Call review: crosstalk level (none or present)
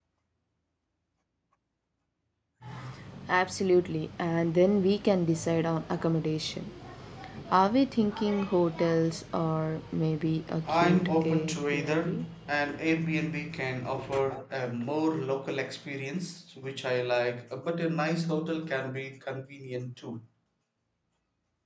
present